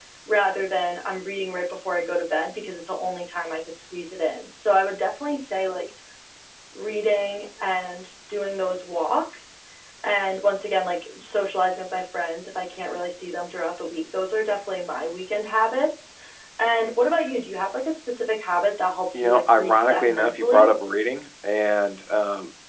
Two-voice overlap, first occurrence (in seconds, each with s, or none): 19.1 s